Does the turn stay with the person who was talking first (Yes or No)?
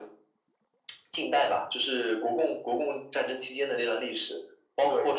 Yes